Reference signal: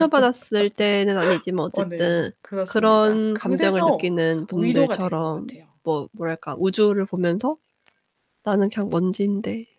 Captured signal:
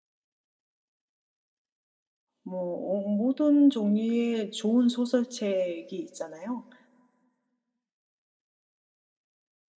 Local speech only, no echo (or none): 뭐 어 모든 종류의 좋은 소설책이 있잖아요.